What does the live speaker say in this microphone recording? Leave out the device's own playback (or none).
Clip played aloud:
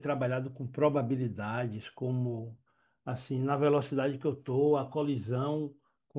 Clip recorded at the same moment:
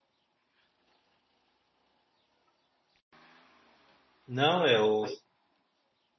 não, eu